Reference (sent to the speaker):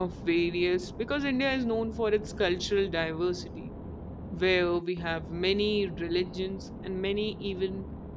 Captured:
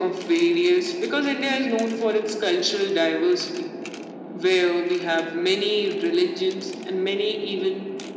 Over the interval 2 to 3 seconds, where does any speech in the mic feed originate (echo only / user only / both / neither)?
echo only